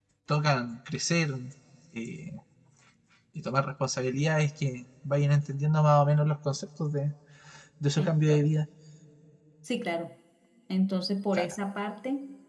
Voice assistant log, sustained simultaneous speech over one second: none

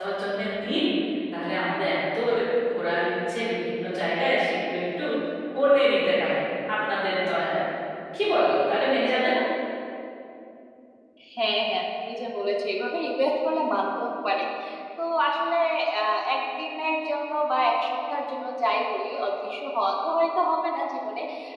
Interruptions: none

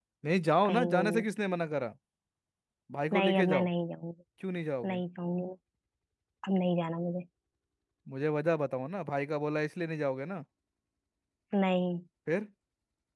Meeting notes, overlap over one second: none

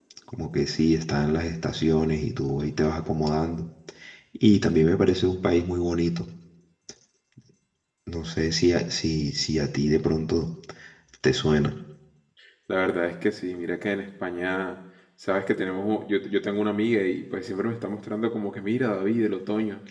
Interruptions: none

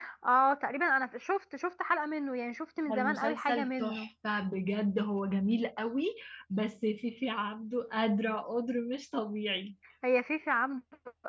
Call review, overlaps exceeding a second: present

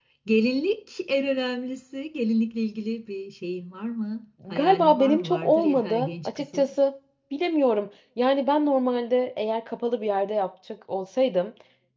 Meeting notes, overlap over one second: present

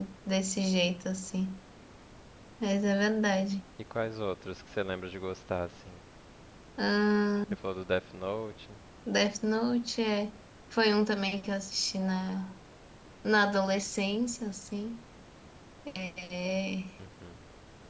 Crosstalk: none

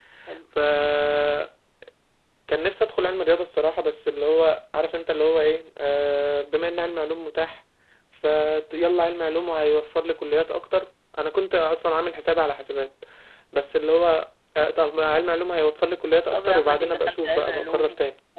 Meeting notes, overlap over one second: present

